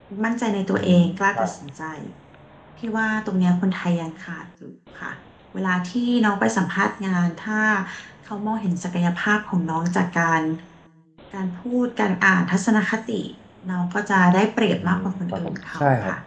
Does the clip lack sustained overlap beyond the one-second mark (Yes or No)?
No